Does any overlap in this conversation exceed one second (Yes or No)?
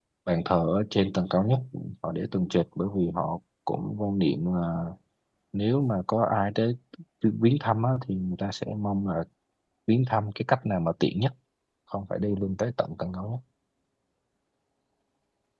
No